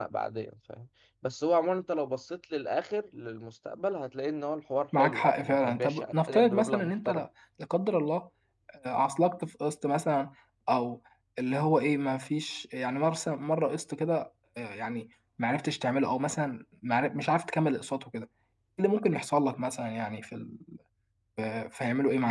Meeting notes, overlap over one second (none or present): present